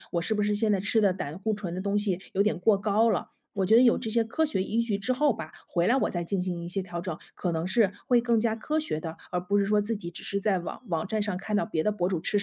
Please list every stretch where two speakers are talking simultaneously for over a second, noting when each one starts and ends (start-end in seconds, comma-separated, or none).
none